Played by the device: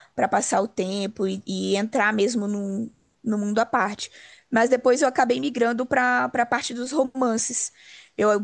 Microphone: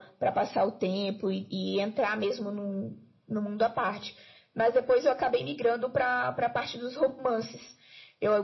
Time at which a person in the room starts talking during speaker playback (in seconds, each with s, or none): none